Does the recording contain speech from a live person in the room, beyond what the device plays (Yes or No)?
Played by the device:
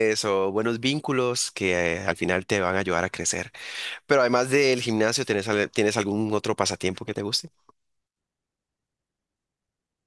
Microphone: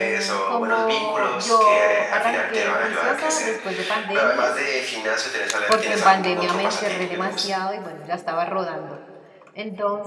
Yes